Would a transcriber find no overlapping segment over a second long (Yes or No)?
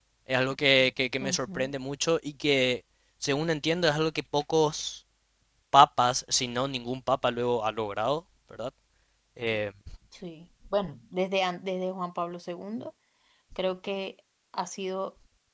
Yes